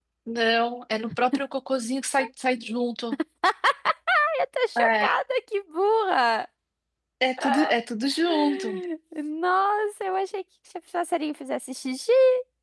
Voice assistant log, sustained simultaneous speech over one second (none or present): none